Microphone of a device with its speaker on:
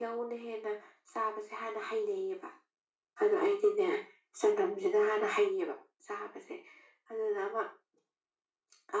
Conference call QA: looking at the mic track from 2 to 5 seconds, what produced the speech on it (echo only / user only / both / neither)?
echo only